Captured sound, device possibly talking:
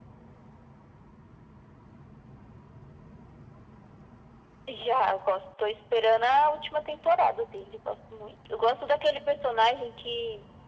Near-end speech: none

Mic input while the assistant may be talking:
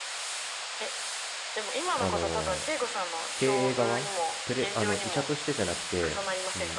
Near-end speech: present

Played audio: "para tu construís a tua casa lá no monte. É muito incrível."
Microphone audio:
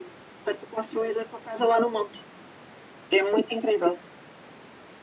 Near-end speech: none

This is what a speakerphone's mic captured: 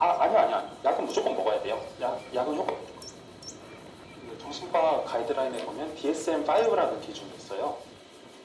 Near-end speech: none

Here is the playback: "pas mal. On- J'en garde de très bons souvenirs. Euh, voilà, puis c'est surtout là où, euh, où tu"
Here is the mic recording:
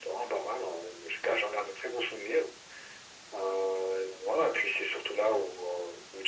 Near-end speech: none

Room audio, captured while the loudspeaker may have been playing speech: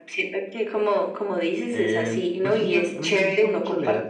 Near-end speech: present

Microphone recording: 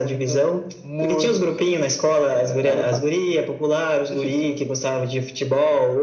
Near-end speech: present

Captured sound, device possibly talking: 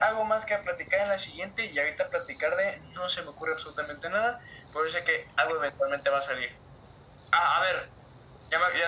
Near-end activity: none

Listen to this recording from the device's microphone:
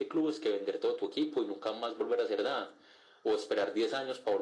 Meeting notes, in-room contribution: none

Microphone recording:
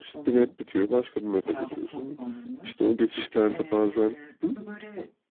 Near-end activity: present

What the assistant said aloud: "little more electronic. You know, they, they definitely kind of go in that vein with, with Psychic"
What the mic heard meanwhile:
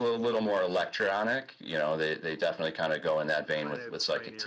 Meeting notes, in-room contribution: present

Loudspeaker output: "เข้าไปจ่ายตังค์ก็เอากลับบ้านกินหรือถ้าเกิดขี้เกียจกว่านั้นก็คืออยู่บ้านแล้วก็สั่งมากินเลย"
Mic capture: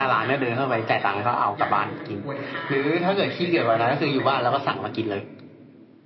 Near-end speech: present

